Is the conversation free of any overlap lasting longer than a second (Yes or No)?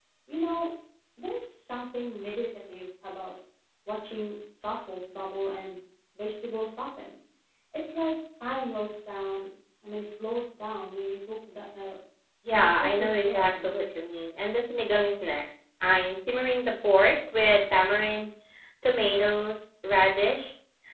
No